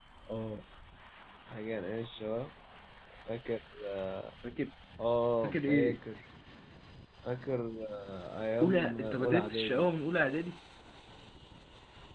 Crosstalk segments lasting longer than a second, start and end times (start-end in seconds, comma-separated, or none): 8.6-9.9